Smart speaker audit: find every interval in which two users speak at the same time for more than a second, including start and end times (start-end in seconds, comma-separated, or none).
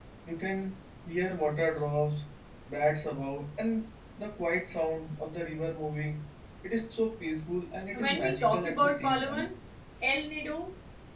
7.9-9.5